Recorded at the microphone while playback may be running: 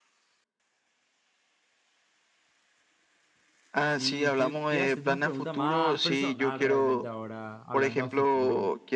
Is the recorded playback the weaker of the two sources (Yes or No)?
No